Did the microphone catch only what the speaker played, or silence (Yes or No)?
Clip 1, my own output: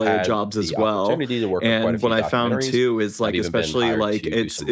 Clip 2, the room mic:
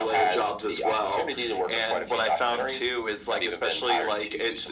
Yes